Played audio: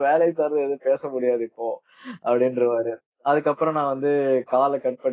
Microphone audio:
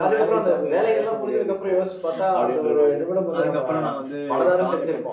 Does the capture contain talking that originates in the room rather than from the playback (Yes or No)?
Yes